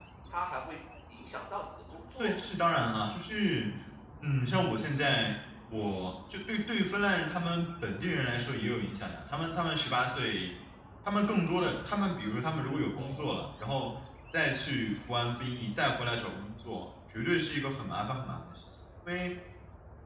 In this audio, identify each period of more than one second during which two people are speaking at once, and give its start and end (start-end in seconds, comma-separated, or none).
none